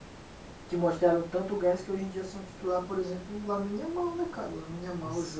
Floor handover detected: Yes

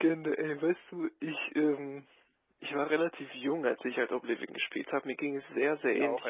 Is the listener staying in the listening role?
Yes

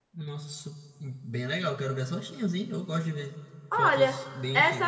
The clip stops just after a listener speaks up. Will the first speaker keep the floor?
No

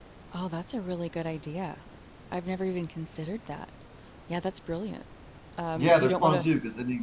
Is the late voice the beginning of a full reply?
Yes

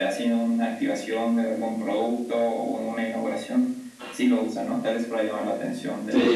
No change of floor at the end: No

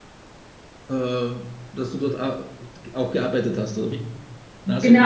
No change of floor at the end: No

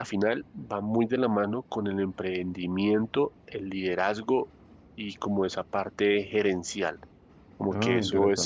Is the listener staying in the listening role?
Yes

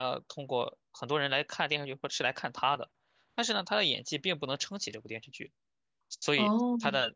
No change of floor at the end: Yes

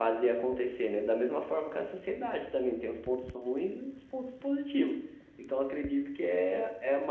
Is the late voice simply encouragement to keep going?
Yes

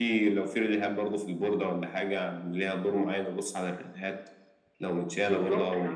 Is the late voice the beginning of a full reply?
Yes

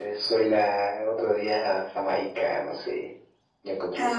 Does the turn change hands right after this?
Yes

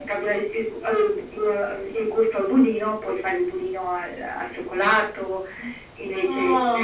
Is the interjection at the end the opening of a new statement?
Yes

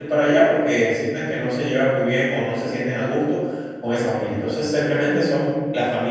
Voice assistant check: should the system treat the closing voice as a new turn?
No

